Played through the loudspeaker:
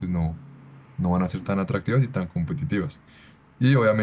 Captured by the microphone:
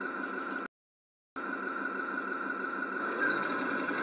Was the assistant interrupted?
No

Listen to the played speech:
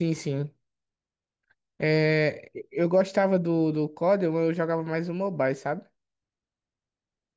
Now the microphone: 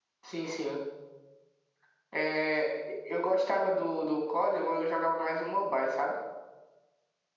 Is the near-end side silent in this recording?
Yes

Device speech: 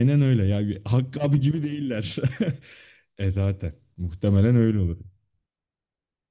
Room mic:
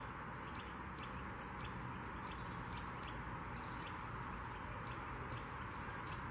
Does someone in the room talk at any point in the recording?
No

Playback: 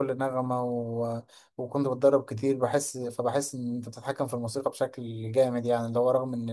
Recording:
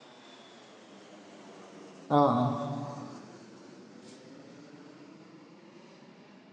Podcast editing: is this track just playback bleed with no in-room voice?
No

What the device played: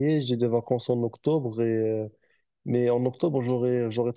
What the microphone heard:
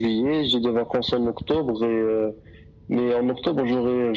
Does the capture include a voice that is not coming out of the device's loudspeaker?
No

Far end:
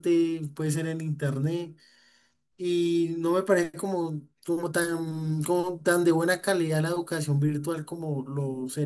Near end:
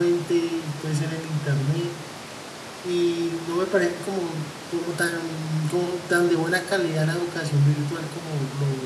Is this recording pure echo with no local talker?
Yes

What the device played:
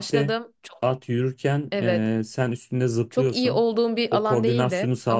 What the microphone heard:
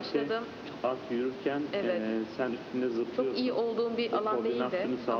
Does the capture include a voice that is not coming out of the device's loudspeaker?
No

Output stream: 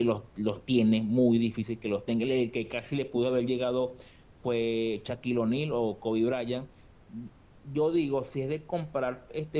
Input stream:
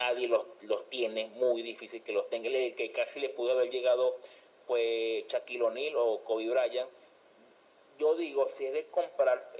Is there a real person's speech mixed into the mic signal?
No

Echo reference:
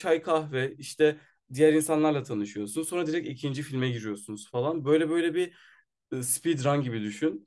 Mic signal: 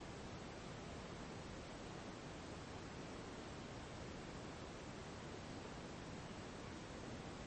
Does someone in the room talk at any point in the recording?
No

